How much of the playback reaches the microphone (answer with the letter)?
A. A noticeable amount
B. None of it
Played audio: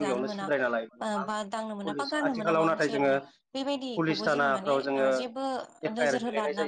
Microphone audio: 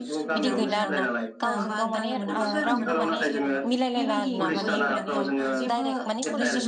A